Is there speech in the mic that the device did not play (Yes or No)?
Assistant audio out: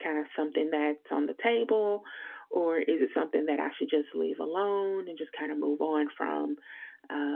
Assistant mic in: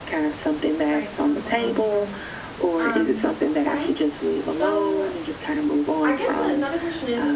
Yes